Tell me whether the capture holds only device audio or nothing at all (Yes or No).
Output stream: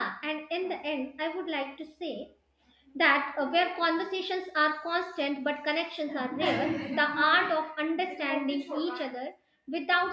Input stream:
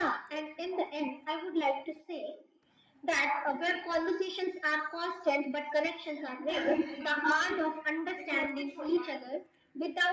Yes